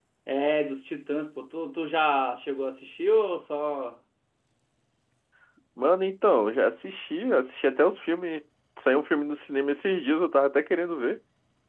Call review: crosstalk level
none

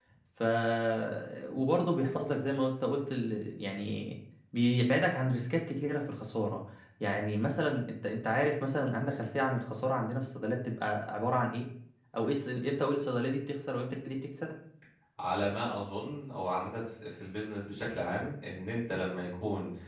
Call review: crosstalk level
none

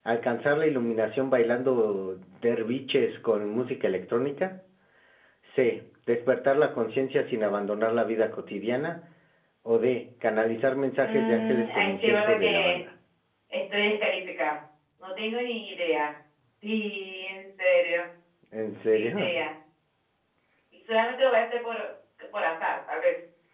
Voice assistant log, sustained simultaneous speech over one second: present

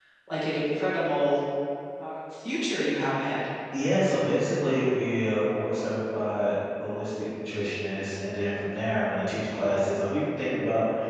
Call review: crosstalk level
none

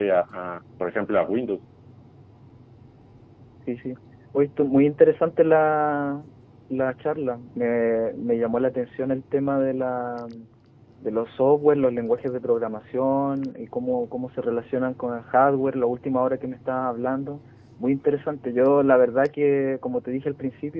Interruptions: none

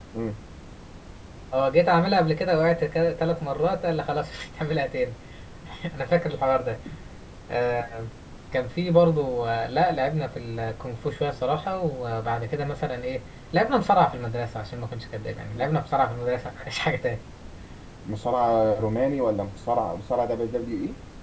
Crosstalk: none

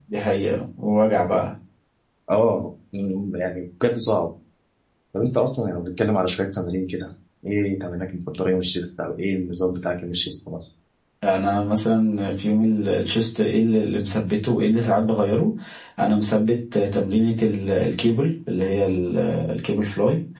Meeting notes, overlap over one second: none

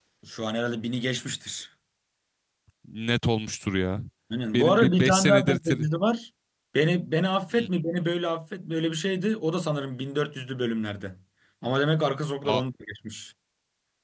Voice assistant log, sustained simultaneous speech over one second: present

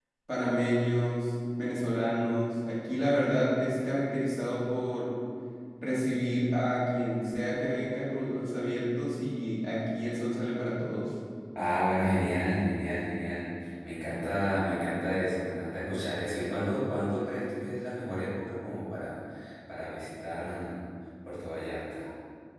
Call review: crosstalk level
none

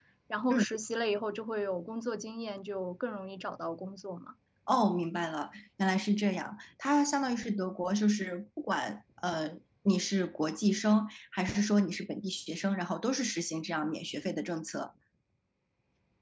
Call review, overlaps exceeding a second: none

